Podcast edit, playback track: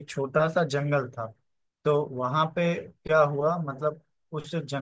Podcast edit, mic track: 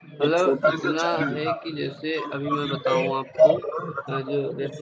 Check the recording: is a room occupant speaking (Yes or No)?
Yes